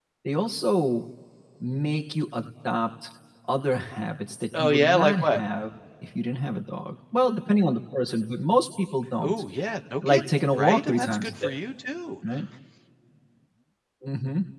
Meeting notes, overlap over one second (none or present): present